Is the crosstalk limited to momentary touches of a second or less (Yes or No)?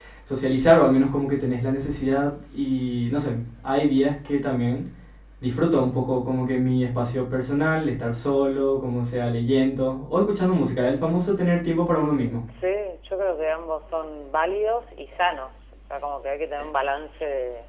Yes